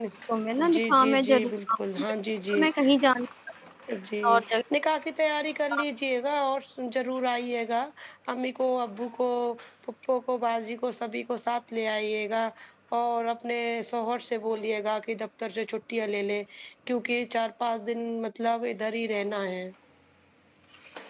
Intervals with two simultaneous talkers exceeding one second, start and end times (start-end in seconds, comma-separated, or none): 0.7-2.1